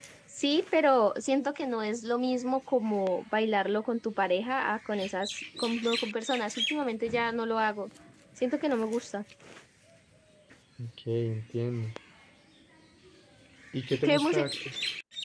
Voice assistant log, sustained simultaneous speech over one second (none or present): none